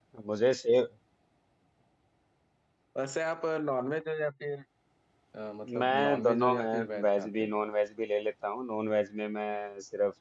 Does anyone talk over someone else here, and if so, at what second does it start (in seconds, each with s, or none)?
5.8 s